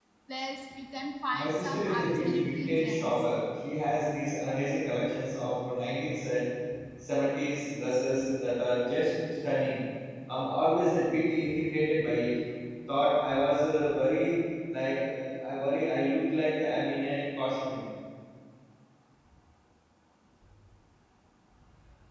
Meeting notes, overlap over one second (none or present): present